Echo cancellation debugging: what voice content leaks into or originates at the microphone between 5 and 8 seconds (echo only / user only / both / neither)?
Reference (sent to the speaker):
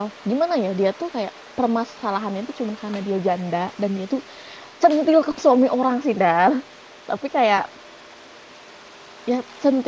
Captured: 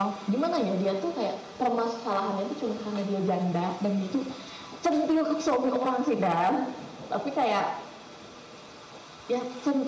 echo only